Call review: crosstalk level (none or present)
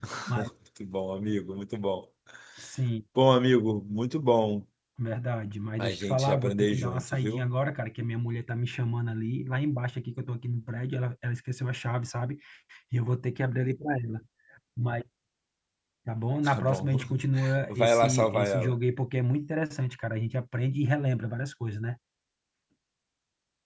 present